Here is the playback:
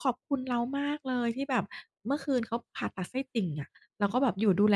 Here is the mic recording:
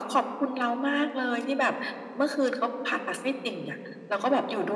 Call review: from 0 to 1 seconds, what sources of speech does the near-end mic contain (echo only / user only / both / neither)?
echo only